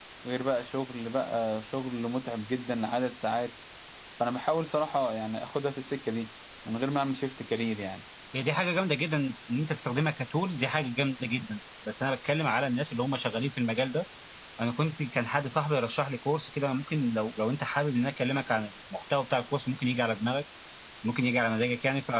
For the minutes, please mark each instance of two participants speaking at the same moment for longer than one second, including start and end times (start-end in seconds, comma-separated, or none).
none